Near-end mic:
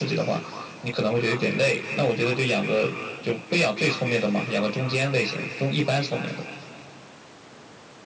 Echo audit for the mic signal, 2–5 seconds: echo only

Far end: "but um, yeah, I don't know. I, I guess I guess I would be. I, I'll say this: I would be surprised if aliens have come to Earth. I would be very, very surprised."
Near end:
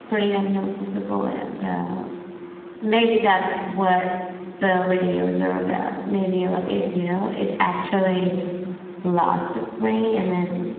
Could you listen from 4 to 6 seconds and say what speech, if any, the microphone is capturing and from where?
user only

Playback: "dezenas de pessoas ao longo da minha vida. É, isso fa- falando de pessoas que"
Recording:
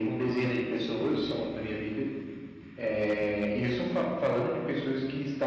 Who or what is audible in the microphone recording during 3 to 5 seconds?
echo only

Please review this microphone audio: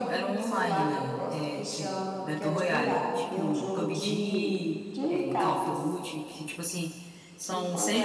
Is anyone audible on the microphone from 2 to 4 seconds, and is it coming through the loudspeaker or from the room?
both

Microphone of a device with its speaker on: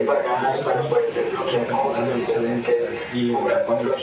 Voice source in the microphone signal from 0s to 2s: both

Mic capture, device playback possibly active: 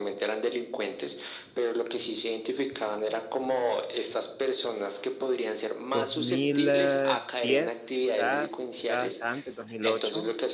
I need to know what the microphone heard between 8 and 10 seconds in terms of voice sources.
both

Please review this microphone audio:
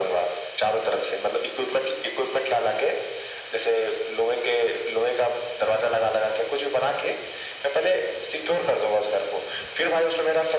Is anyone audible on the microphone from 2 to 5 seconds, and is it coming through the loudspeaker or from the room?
echo only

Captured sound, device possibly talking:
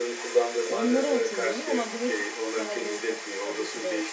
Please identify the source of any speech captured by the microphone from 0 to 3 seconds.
both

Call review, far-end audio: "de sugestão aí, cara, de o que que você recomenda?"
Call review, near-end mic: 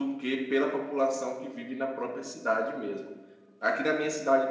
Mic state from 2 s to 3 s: user only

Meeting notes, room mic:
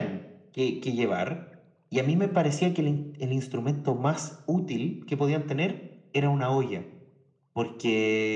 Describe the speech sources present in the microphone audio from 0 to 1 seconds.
echo only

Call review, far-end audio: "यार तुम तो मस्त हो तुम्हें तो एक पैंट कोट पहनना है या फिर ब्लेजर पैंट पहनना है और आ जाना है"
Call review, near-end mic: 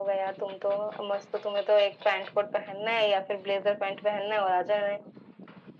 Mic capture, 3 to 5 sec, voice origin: echo only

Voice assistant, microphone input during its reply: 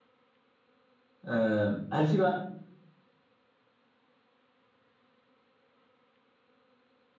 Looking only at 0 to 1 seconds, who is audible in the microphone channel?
neither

